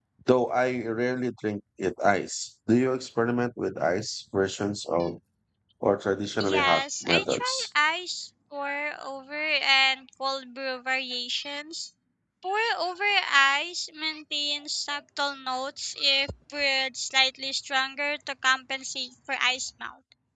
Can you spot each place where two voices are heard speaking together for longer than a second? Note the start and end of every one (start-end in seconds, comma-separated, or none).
6.4-7.7